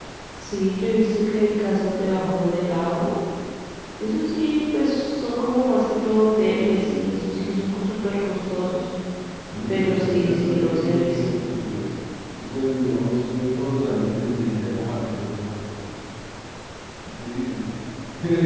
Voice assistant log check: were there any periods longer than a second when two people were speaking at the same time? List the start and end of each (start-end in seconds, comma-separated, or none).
9.7-11.4